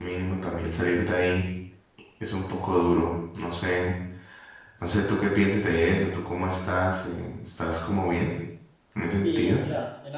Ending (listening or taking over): taking over